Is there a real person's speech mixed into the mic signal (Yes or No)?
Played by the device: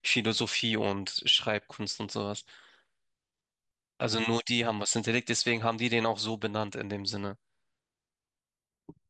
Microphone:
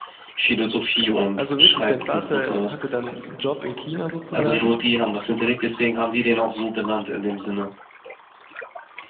Yes